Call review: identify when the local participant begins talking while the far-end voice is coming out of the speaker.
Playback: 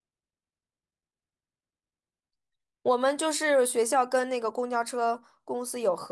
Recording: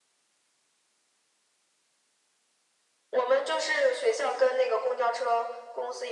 none

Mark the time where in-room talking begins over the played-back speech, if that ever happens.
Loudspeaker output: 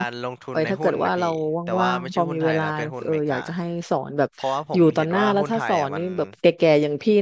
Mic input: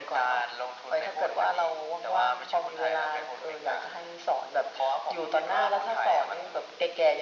none

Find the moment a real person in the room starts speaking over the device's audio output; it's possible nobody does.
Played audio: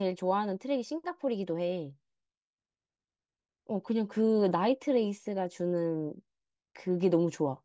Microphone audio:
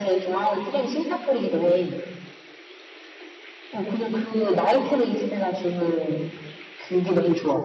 none

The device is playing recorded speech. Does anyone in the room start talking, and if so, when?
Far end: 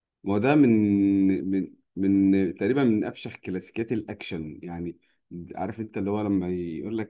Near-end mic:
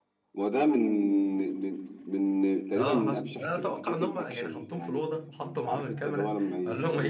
2.8 s

